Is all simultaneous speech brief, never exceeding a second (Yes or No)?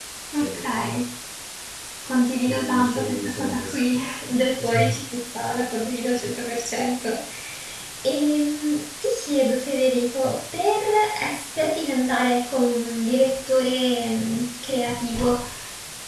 No